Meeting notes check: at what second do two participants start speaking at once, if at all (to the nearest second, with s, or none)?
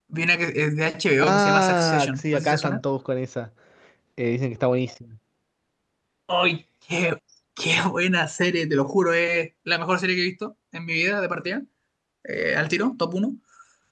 1 s